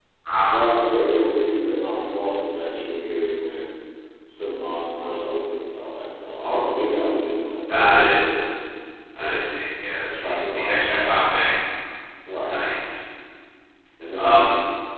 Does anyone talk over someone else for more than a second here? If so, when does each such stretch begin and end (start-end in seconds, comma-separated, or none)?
10.2-11.4